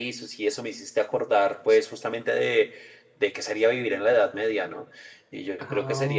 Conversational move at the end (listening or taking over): listening